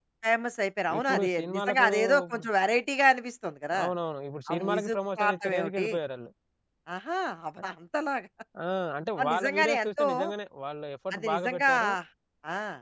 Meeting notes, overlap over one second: present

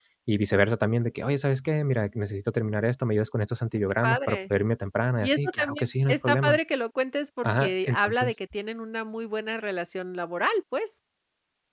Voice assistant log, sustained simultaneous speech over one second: present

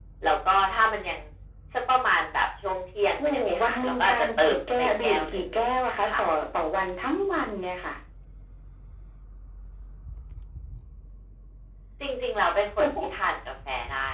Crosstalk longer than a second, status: present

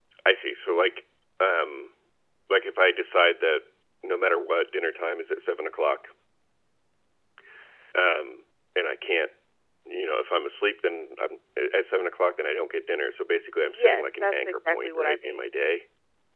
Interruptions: present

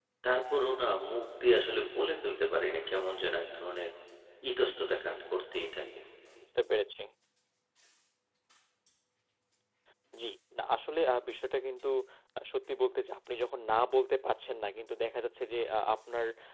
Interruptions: none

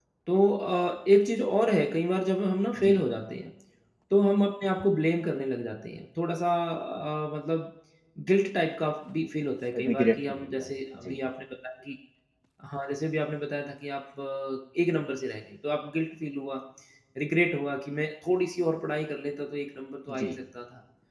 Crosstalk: present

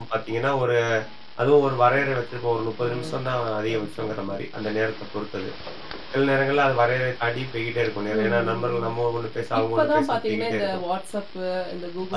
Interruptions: present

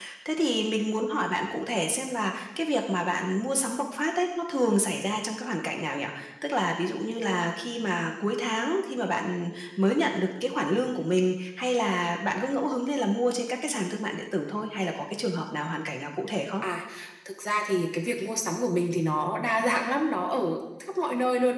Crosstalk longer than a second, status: none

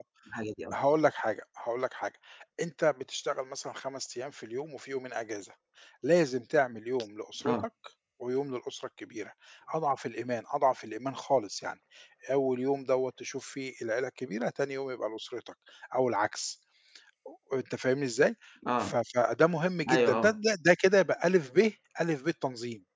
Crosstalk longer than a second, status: none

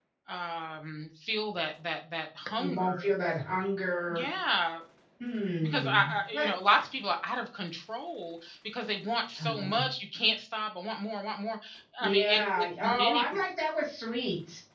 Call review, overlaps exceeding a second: present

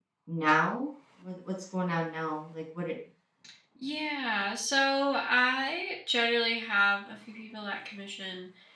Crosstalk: none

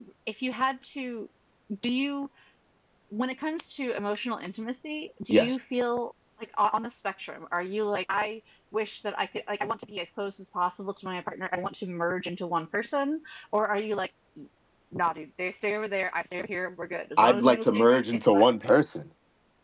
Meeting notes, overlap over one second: present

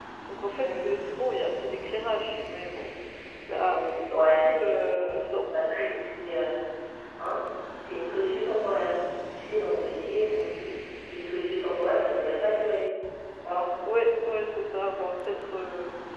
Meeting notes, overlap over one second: present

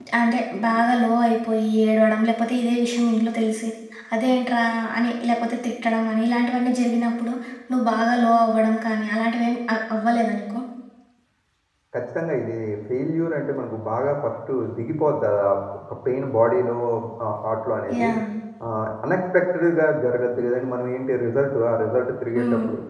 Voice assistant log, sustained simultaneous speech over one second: none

